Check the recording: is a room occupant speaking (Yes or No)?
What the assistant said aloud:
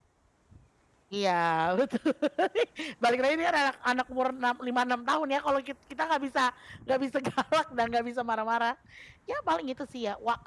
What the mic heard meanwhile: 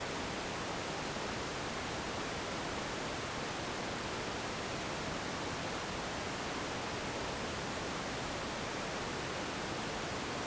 No